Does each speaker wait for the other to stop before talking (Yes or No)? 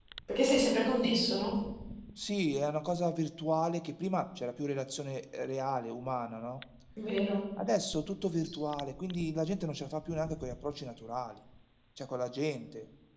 Yes